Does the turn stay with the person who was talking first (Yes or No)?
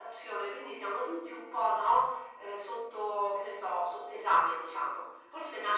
Yes